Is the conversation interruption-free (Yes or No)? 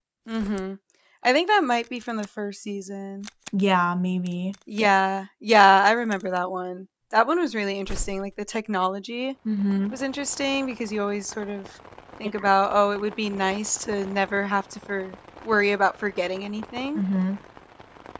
Yes